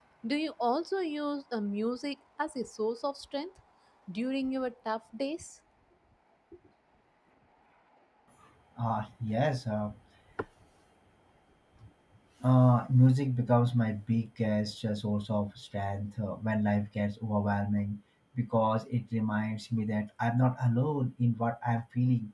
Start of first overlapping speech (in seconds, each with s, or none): none